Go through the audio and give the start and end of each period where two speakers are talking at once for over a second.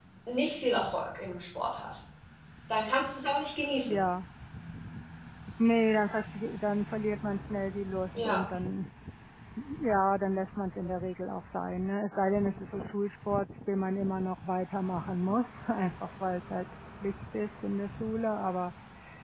none

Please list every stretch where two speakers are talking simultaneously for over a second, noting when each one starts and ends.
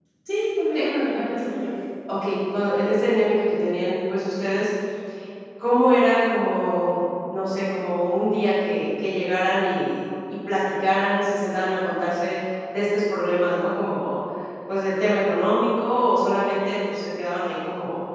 none

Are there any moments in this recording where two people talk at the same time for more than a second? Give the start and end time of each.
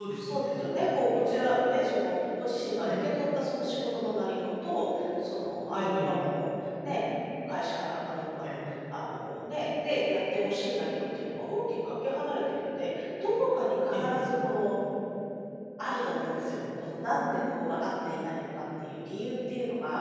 none

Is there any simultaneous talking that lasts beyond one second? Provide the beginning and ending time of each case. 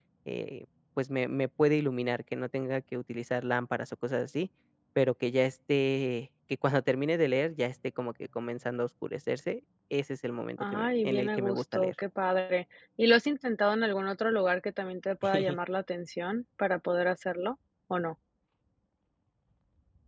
10.6-11.9

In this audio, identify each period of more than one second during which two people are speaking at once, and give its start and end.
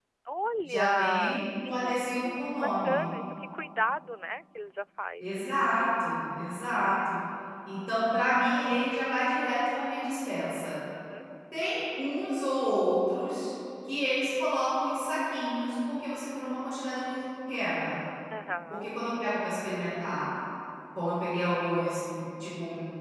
0.6-3.0

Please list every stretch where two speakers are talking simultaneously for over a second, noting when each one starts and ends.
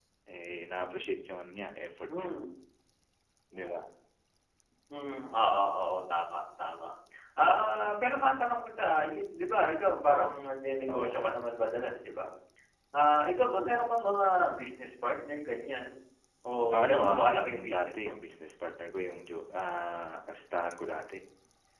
16.7-18.1

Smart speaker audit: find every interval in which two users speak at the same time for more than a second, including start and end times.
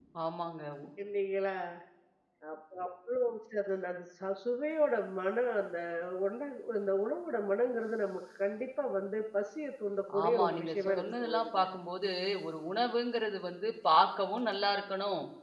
10.2-11.6

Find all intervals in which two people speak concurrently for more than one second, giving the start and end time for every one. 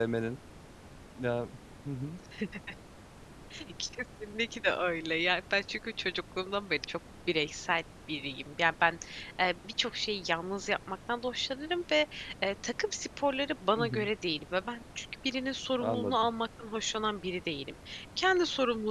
none

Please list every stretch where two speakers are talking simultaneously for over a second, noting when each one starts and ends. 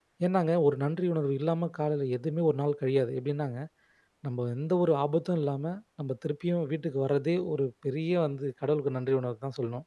none

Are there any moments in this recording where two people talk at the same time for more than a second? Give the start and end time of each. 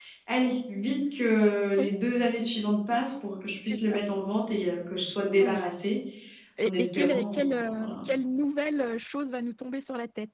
6.7-8.0

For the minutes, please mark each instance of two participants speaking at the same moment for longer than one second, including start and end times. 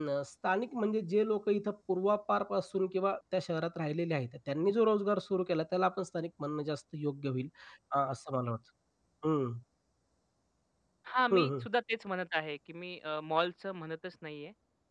none

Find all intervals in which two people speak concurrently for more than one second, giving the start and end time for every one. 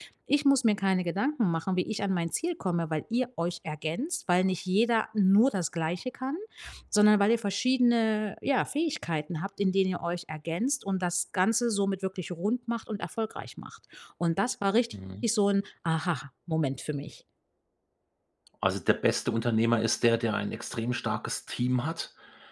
none

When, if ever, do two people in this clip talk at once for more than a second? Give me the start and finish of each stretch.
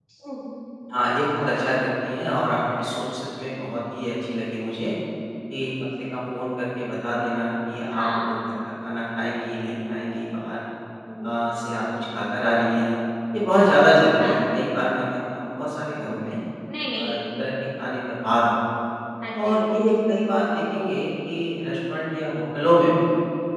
none

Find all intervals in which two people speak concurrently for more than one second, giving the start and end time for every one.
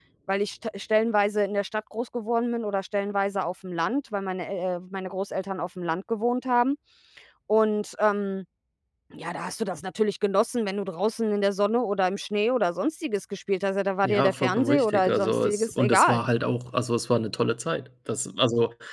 14.0-16.2

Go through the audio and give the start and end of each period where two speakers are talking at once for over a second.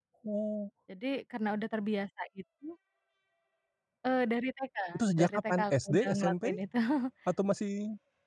5.2-6.5

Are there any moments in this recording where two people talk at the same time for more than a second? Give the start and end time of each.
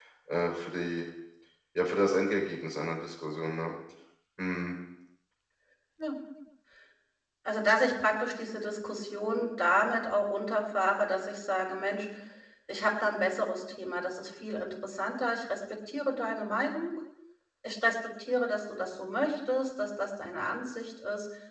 none

